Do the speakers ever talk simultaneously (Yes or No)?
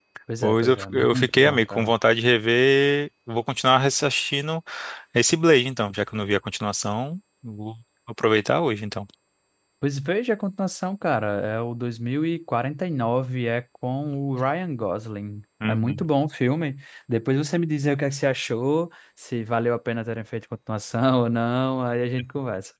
Yes